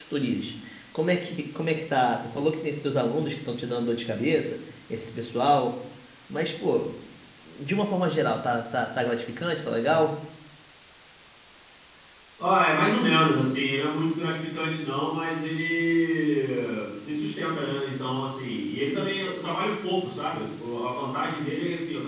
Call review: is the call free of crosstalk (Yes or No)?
Yes